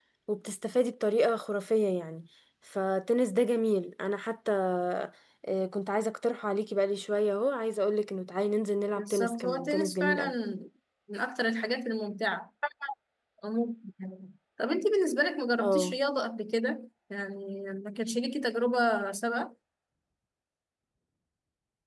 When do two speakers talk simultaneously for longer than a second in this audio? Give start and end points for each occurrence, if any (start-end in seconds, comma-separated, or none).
9.0-10.3